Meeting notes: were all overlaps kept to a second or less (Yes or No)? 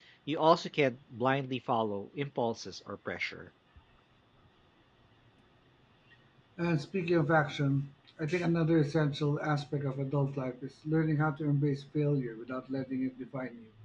Yes